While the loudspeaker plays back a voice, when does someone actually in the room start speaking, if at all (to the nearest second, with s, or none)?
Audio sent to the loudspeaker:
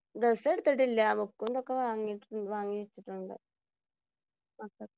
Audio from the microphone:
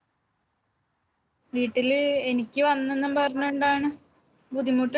2 s